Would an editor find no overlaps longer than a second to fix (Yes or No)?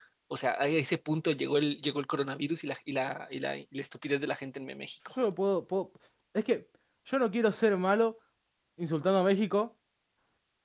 Yes